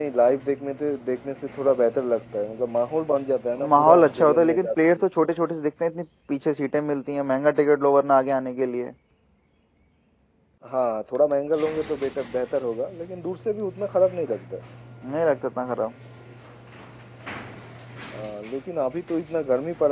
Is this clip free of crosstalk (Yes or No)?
No